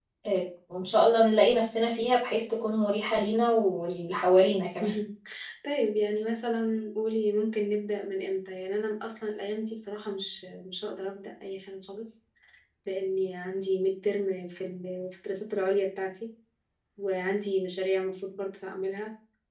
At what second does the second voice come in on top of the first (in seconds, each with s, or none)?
none